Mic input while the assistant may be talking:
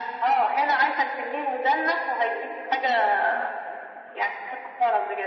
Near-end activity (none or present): none